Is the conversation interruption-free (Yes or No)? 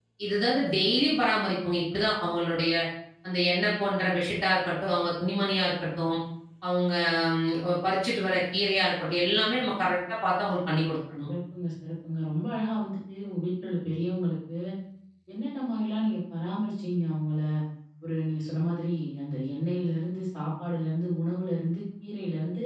Yes